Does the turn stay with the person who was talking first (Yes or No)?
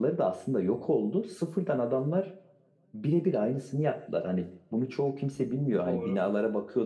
Yes